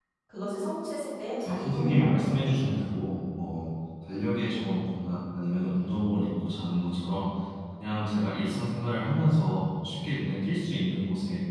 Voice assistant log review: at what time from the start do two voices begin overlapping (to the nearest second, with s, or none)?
1 s